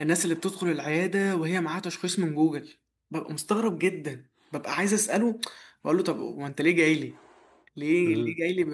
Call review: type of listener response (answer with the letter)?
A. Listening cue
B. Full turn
A